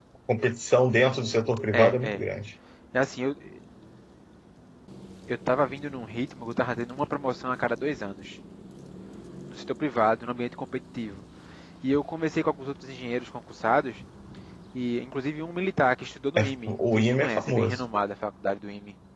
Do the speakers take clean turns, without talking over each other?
No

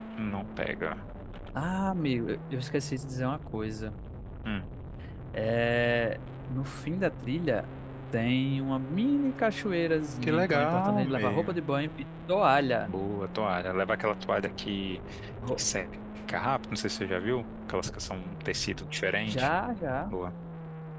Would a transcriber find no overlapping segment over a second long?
No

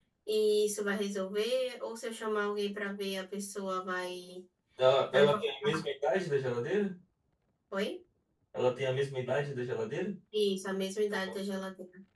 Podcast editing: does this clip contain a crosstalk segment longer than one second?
No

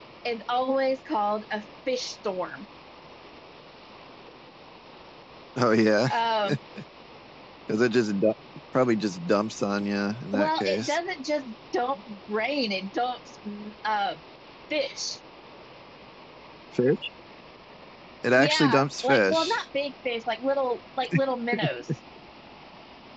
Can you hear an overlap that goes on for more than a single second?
Yes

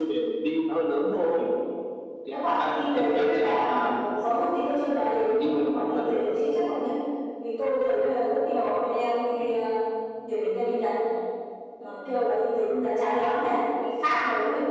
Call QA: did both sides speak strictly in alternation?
No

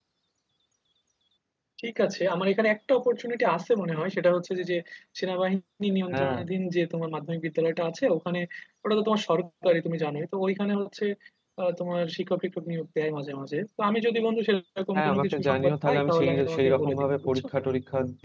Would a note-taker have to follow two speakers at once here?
Yes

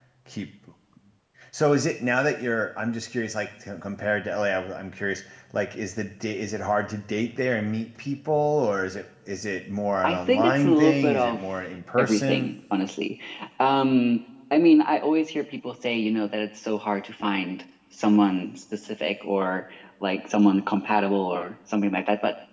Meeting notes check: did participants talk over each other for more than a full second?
Yes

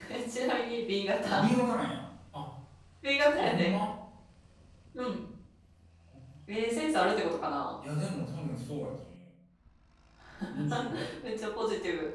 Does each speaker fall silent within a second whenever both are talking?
Yes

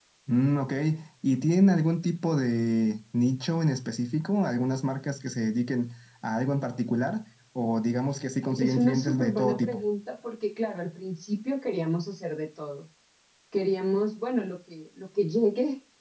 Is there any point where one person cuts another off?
Yes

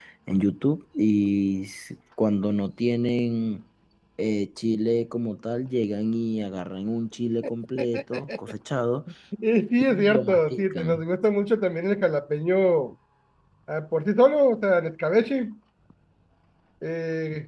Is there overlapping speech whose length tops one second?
Yes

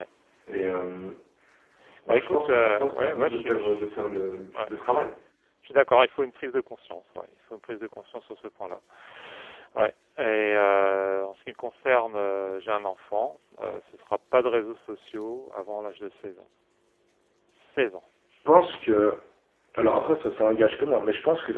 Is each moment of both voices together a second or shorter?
No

